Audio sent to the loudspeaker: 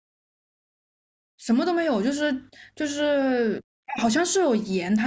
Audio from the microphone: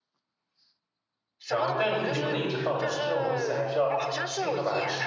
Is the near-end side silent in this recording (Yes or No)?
No